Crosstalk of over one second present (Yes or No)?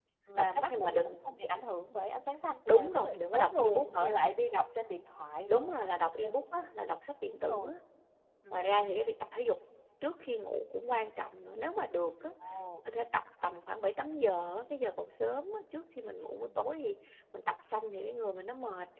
Yes